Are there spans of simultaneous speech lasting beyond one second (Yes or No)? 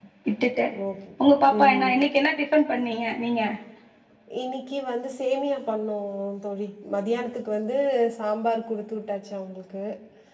No